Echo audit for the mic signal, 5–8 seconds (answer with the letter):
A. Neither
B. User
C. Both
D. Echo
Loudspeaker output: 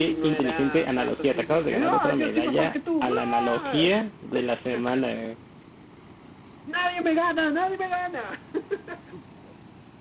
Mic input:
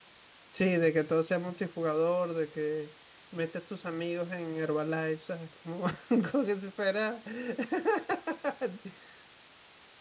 B